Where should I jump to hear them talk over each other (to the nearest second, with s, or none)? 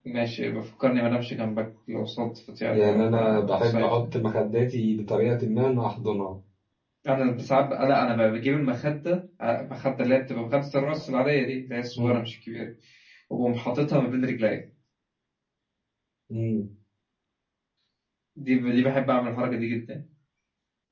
3 s